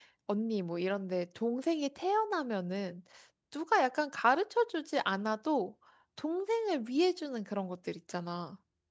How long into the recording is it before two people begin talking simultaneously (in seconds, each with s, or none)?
none